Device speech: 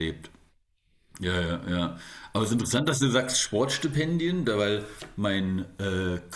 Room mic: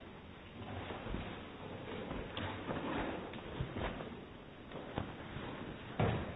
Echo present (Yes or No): No